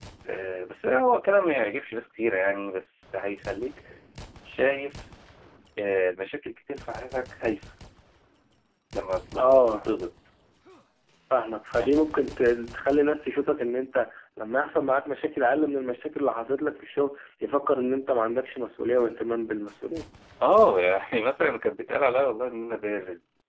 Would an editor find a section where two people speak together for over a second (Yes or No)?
No